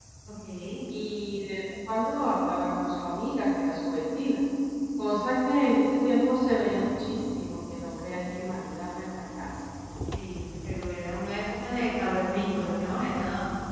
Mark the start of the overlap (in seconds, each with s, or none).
none